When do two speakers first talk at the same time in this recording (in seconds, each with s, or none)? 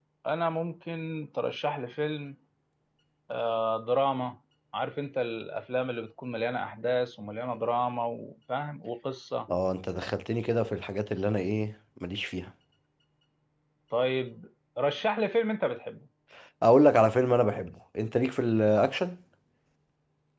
none